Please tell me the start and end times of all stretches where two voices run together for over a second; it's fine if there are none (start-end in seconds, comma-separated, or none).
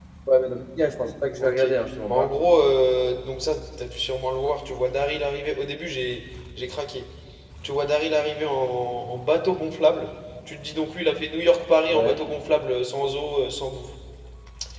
none